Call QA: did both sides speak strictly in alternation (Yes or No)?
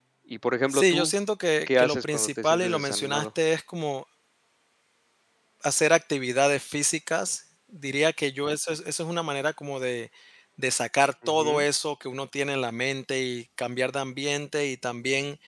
No